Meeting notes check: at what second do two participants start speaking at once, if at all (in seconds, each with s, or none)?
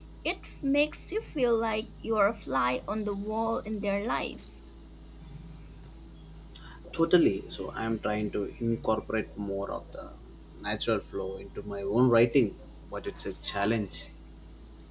none